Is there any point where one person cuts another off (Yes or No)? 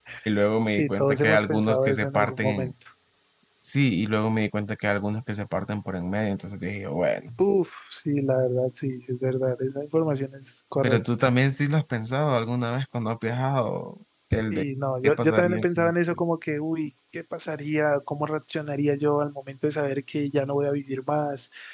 Yes